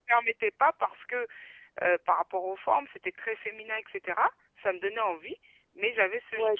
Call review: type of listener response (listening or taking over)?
taking over